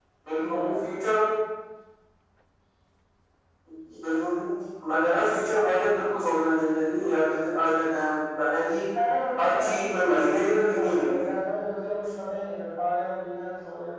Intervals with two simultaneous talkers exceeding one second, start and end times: 9.4-11.3

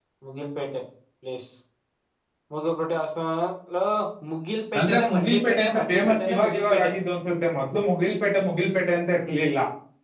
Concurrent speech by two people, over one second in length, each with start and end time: 4.8-6.9

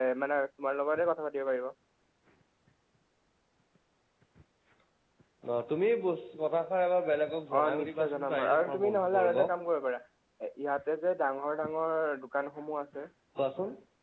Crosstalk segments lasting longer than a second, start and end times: 7.6-9.5

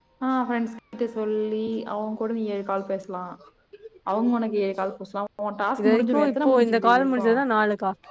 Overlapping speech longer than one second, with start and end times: 5.8-7.2

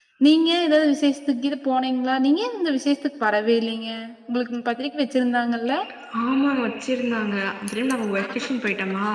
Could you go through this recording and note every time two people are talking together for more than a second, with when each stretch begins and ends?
none

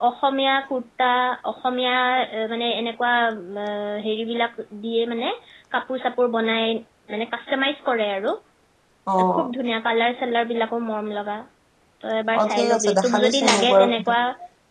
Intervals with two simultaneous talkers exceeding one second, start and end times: 12.4-14.1

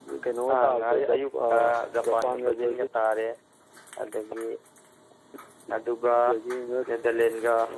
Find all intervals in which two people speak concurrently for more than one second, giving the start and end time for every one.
0.5-2.8

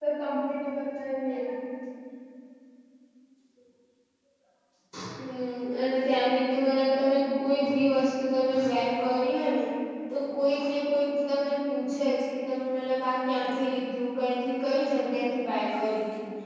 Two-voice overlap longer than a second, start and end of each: none

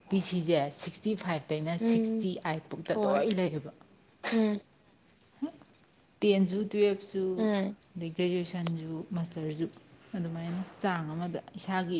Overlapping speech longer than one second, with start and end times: none

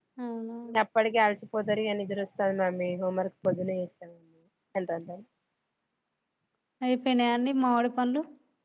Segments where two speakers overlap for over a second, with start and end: none

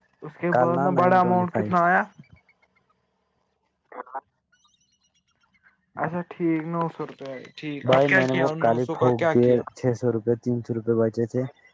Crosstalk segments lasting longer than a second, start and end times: 0.5-1.7, 7.9-9.6

